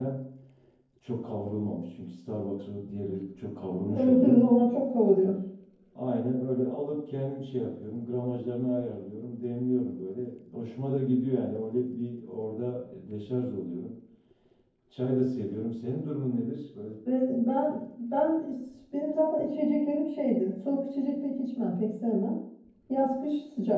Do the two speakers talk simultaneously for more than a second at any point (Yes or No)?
No